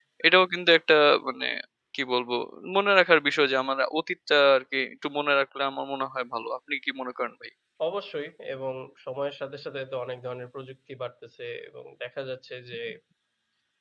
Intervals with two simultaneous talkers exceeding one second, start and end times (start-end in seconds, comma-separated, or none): none